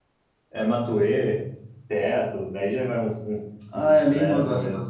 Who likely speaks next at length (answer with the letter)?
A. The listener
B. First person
A